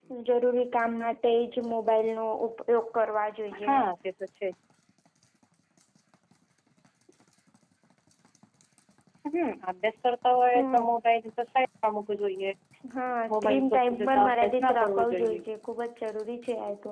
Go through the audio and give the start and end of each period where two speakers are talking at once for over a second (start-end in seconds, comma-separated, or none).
13.3-15.4